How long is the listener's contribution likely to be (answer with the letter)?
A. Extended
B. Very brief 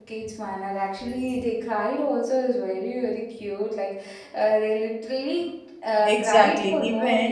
A